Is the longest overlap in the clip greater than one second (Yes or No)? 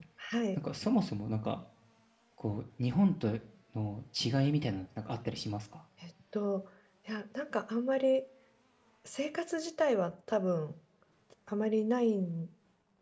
No